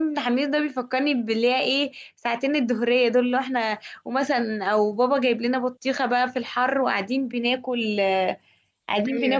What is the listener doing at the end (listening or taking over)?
listening